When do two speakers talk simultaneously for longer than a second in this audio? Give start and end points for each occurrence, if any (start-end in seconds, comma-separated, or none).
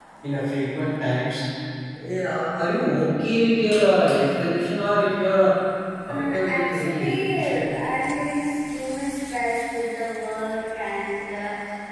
6.1-7.6